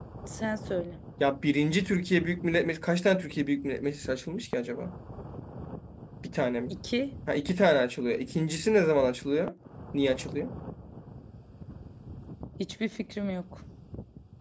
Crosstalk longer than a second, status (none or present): none